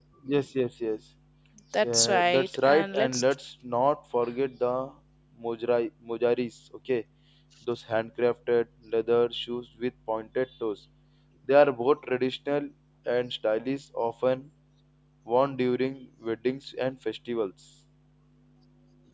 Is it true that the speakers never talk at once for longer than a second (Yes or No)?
No